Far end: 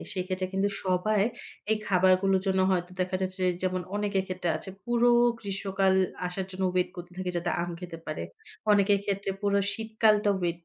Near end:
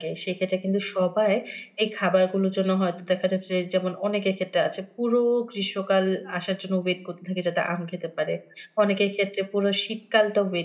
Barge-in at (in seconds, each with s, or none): none